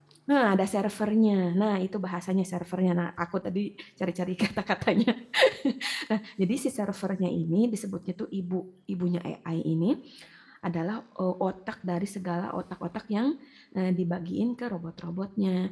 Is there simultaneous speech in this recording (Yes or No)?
No